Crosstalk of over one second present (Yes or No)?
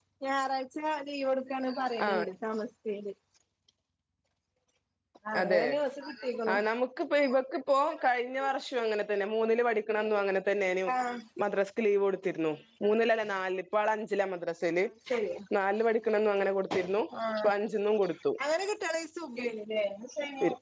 No